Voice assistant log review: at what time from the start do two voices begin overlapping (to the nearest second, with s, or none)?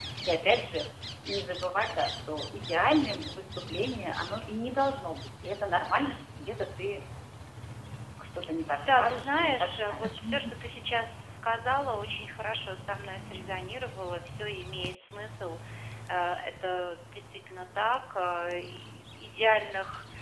9 s